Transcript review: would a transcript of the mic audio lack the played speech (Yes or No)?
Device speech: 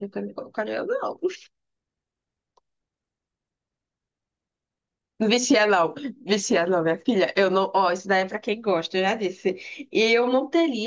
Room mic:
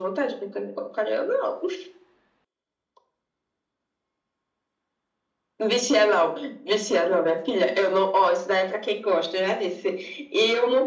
No